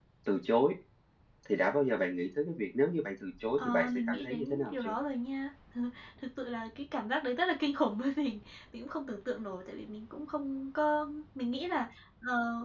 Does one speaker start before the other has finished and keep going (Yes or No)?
Yes